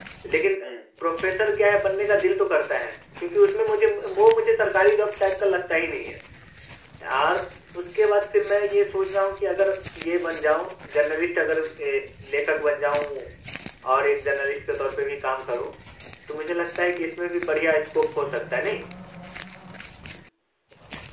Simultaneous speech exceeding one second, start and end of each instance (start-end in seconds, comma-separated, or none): none